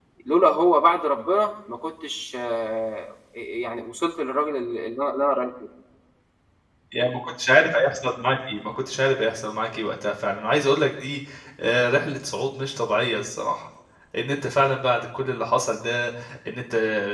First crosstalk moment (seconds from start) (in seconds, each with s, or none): none